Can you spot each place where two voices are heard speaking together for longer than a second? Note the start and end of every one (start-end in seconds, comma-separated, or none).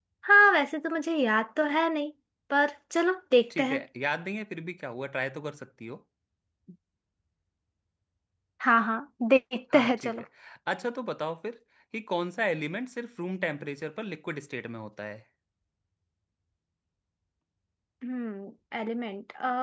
none